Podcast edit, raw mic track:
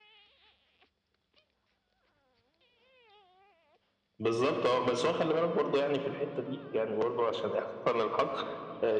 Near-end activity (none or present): none